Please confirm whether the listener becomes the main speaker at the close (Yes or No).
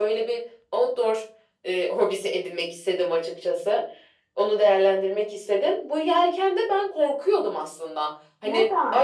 No